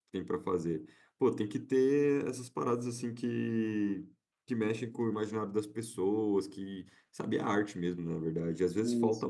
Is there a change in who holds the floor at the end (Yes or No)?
No